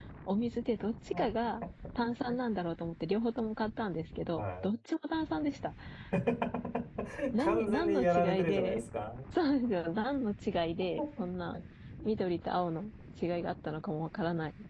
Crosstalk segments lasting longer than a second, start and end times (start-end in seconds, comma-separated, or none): 7.4-8.8